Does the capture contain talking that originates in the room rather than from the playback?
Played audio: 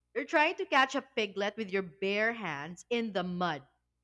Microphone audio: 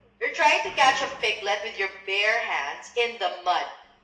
No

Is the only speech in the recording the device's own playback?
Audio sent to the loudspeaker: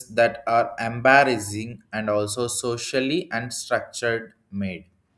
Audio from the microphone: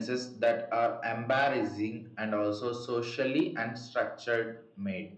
Yes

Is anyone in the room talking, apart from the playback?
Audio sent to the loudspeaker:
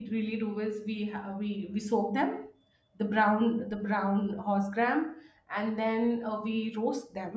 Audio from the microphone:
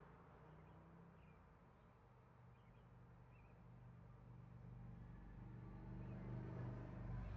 No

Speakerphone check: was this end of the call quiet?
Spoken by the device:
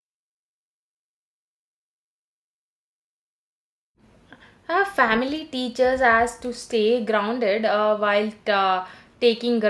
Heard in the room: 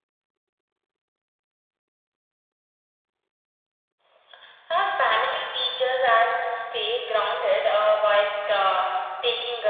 Yes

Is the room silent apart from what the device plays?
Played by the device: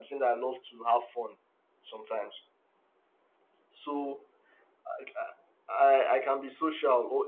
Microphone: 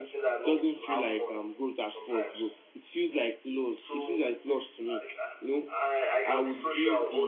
No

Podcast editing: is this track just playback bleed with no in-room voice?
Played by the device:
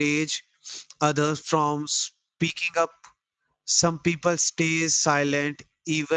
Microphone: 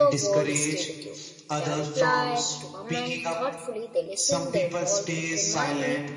No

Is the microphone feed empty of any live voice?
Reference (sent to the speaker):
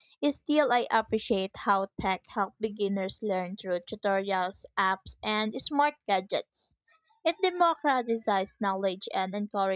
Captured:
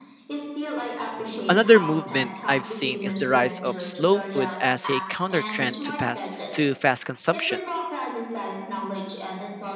No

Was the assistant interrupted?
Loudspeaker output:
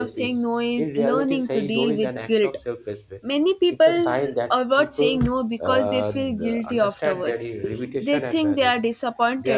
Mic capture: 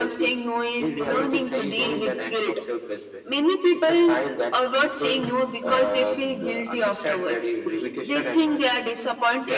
No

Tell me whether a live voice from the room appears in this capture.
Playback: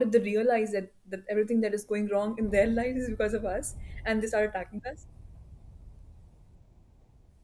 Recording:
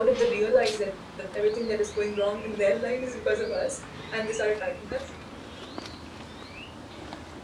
No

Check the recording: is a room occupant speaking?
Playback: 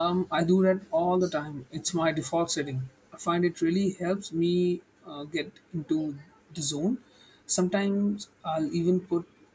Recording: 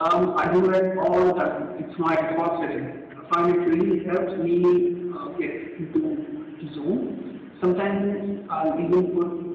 No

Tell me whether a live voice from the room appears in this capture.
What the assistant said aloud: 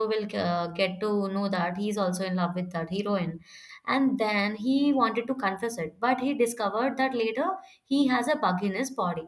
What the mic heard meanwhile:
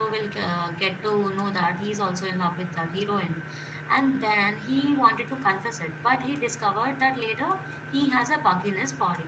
No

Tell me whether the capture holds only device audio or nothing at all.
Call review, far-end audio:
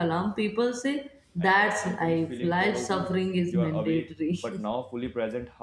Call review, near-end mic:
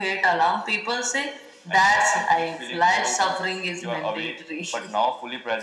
Yes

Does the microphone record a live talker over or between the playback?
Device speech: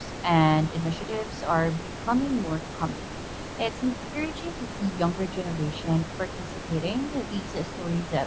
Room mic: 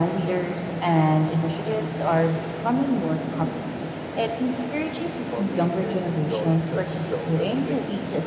Yes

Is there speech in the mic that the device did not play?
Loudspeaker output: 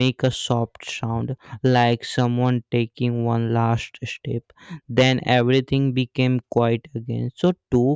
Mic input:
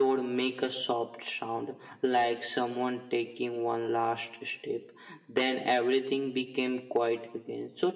No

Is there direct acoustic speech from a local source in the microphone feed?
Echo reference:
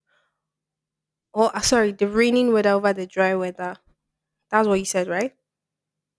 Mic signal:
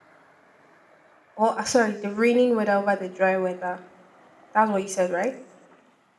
No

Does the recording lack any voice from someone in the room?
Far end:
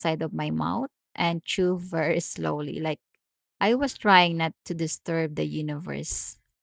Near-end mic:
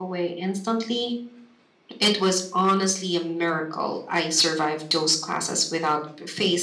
No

